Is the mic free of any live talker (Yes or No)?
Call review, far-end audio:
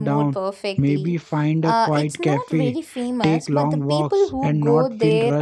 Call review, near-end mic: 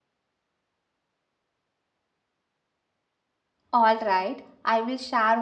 No